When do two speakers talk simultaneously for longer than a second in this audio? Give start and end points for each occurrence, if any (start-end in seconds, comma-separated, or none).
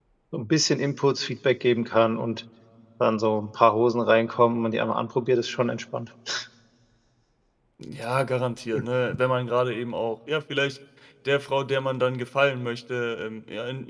none